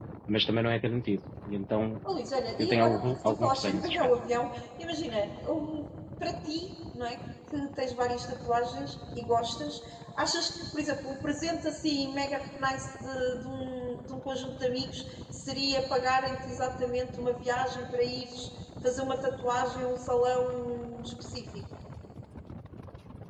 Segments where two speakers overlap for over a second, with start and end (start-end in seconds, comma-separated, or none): 2.6-4.1